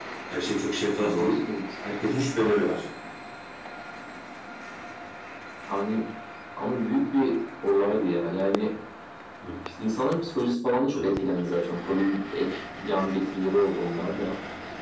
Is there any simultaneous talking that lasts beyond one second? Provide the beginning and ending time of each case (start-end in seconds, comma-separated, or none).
none